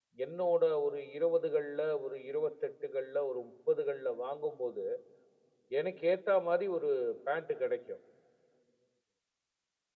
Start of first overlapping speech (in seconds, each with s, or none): none